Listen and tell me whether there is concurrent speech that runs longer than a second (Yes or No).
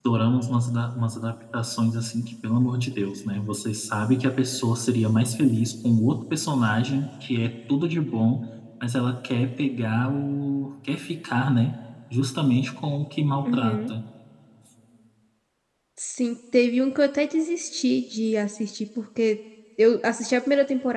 No